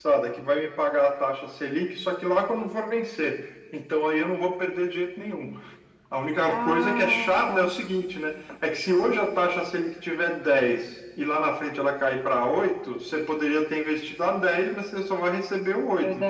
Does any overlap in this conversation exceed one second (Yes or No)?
Yes